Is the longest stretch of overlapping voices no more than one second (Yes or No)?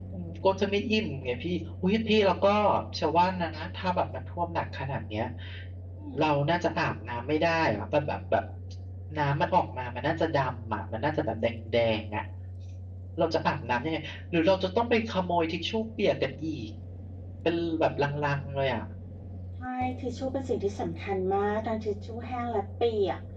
Yes